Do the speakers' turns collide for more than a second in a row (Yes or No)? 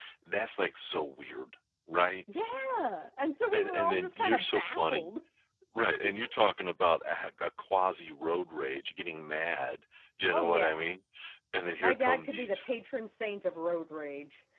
Yes